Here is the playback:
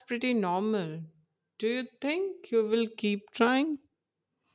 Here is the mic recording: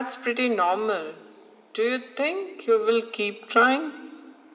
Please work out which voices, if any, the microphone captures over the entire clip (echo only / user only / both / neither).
echo only